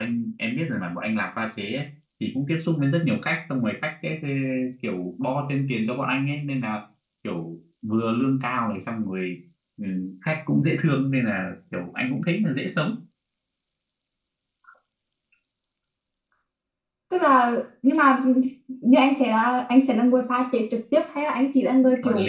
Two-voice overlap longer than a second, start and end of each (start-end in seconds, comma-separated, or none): none